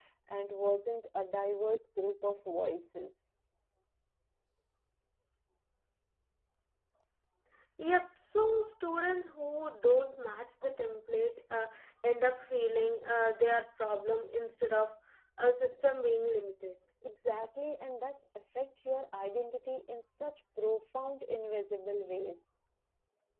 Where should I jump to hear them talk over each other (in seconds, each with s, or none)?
none